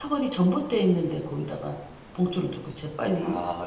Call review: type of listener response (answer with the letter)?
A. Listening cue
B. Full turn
A